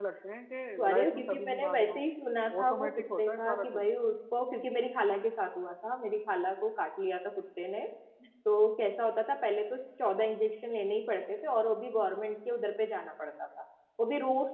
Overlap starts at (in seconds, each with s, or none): 0.8 s